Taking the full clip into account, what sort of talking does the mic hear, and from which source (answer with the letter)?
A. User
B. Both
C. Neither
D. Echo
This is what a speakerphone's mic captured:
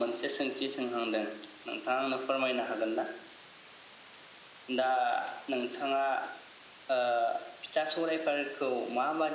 D